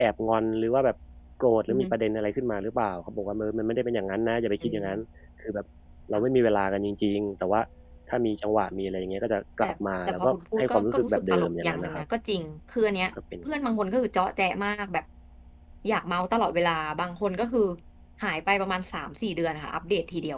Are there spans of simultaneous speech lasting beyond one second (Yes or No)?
Yes